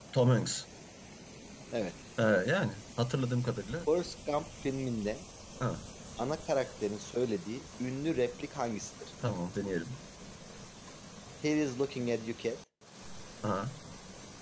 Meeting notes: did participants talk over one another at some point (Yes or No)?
No